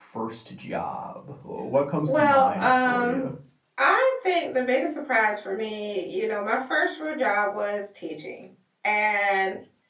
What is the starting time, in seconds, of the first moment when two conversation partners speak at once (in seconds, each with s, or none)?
2.1 s